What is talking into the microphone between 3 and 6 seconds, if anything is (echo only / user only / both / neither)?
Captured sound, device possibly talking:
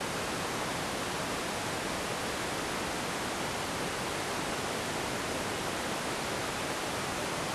neither